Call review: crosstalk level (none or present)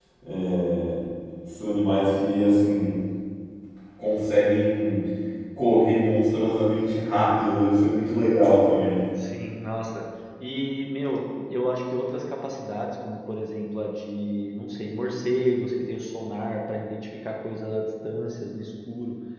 none